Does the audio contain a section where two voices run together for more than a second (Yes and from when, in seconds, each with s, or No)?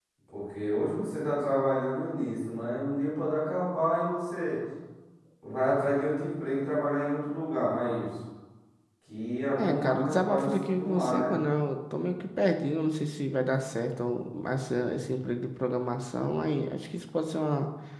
Yes, from 9.6 s